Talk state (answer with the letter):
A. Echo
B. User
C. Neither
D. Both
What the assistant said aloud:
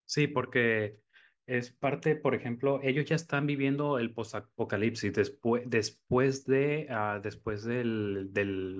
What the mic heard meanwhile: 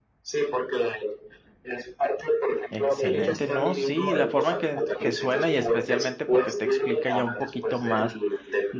D